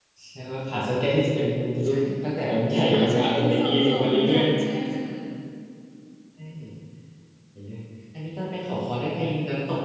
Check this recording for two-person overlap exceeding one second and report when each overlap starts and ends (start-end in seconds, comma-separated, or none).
2.9-4.5